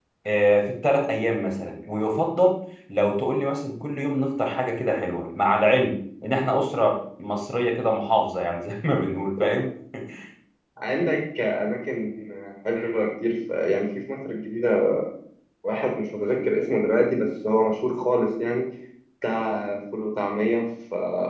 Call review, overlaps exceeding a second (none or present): none